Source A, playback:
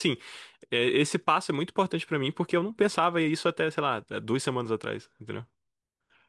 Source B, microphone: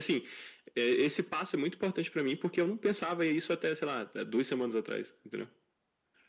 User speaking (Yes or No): No